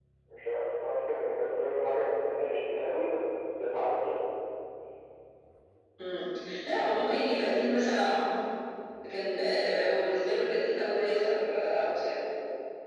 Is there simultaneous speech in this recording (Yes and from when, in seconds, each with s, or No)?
No